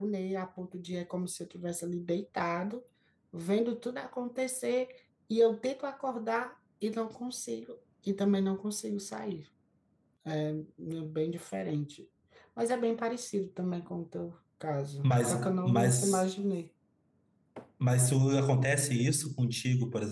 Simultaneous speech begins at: 15 s

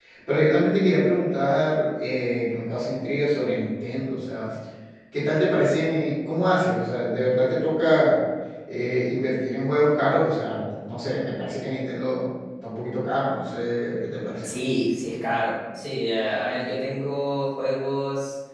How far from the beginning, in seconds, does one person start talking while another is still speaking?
none

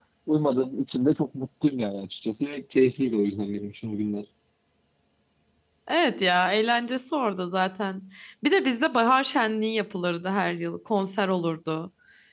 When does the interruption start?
none

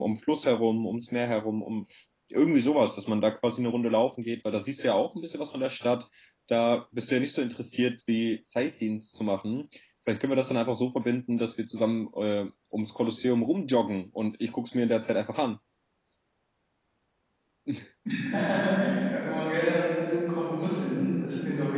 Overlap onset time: none

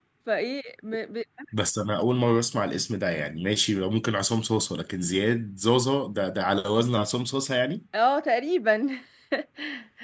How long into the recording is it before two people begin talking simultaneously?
none

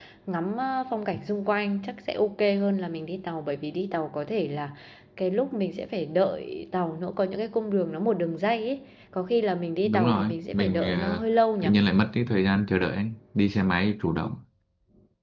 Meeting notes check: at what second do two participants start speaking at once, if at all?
10 s

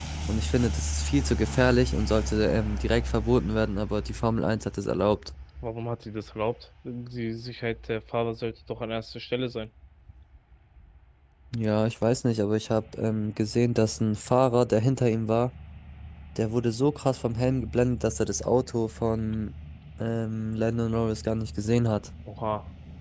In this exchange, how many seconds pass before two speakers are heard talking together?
none

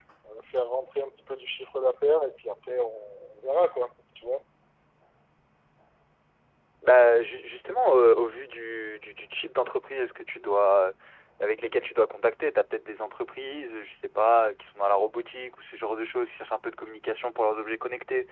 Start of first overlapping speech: none

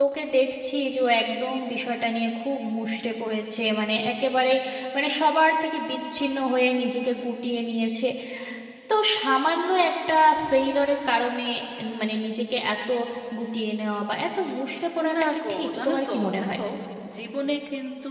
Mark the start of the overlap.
15 s

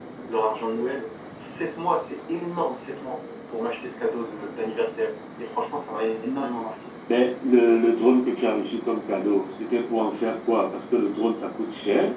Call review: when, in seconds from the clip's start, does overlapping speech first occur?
none

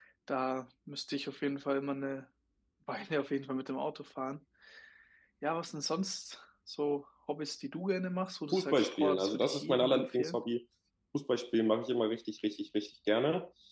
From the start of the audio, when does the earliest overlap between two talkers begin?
9 s

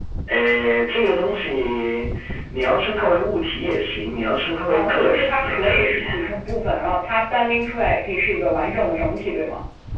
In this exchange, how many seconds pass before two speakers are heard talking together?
5 s

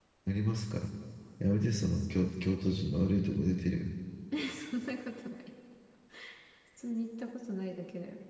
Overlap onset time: none

